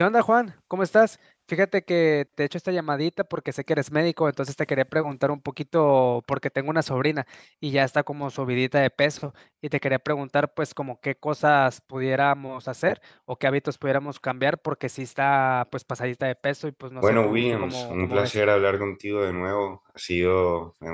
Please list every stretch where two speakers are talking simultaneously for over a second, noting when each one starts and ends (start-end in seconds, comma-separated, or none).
17.0-18.4